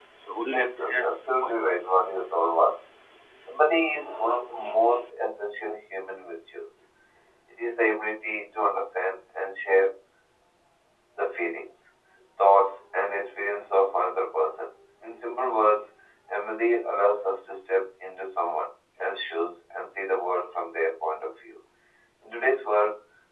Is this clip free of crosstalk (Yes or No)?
No